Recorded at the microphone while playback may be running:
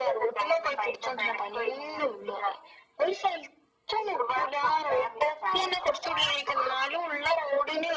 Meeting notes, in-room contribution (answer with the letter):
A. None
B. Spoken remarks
A